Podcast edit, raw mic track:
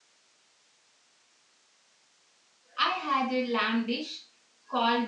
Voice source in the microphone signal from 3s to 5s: user only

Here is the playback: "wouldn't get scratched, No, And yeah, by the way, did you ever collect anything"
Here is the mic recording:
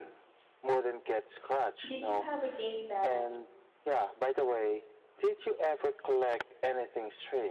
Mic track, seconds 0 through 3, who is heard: both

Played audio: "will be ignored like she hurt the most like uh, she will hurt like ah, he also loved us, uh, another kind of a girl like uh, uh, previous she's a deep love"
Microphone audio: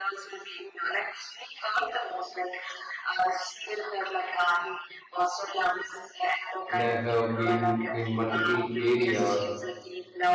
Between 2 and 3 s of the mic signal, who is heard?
echo only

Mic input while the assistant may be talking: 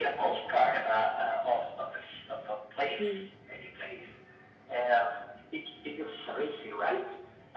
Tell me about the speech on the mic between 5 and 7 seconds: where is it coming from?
echo only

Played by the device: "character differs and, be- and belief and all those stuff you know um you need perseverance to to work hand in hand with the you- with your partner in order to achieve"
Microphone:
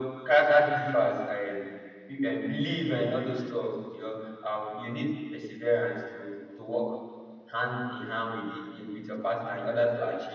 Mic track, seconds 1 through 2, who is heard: echo only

